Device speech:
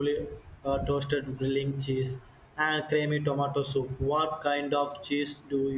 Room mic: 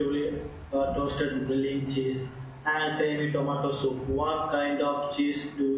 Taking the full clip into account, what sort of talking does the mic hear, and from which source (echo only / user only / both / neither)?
echo only